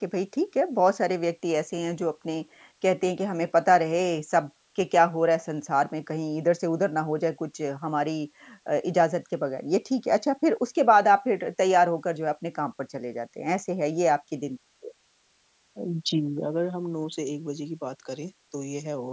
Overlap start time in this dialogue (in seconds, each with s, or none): none